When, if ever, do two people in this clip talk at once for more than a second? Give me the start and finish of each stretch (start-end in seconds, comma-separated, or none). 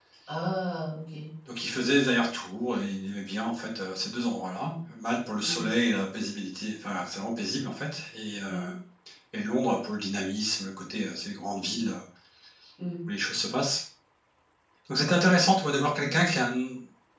none